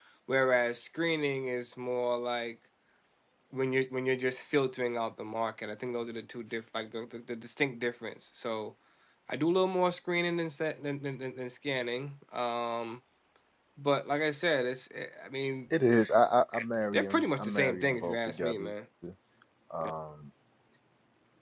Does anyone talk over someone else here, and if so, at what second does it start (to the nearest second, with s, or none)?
17 s